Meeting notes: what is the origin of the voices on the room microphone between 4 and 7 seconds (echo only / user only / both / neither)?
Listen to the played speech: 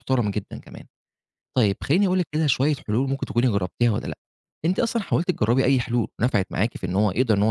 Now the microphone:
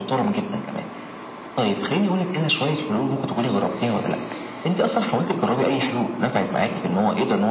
echo only